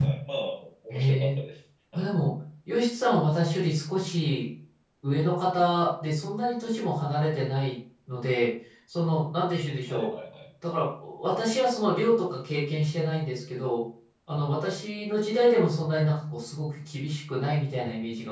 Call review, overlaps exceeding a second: none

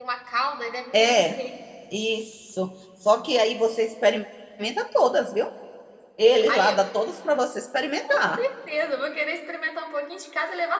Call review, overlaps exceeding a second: none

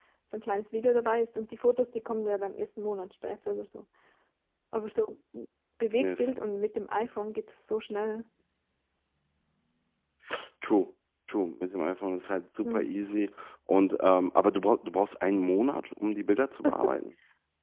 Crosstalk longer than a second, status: none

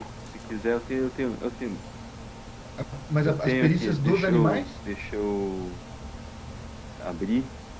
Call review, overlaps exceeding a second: present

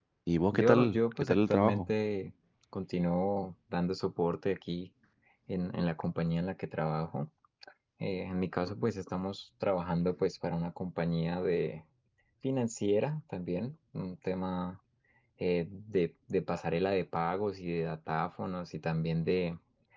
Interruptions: present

